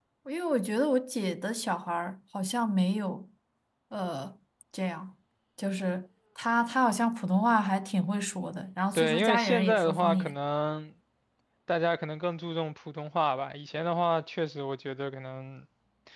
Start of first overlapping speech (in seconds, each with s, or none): 8.9 s